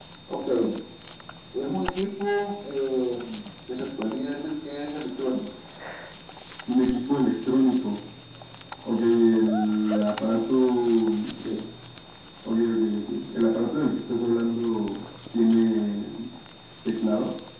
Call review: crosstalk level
none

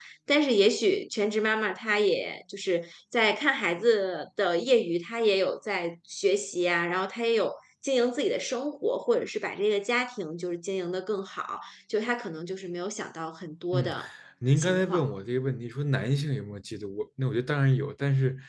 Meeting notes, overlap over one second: none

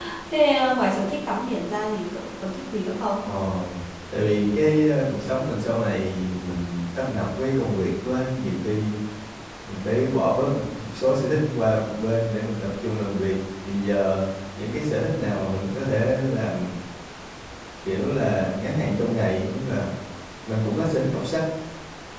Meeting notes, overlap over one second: none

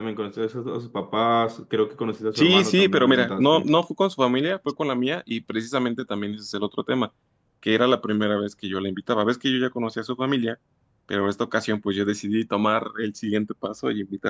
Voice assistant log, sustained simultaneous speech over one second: present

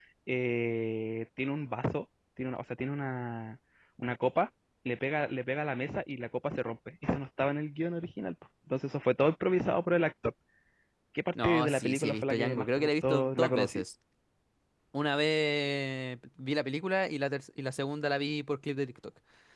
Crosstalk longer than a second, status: present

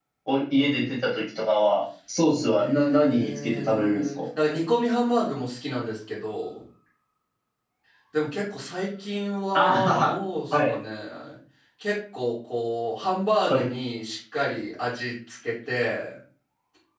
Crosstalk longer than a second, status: present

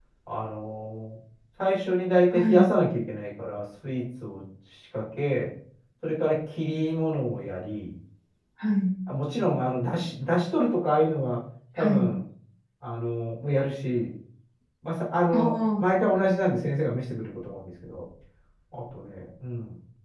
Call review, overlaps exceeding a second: none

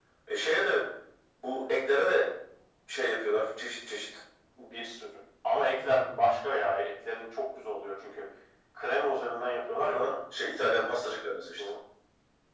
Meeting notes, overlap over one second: none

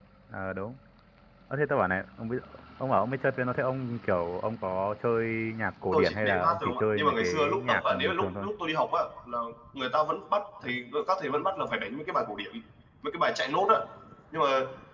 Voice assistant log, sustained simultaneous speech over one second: present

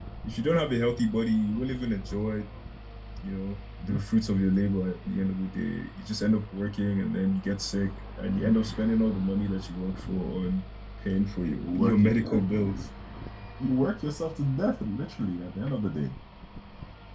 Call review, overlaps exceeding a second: present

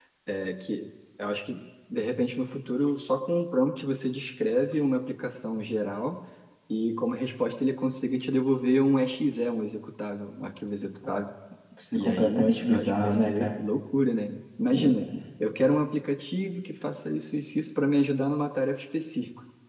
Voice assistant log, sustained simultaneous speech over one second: present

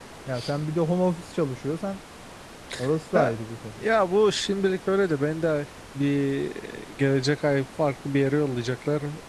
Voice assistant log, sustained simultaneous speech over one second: none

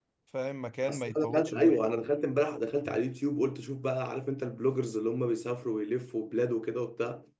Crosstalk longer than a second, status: present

